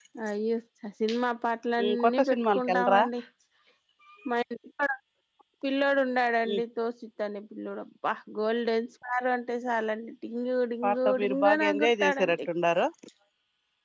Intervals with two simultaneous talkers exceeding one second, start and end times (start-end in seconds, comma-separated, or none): 1.8-3.0, 10.8-12.4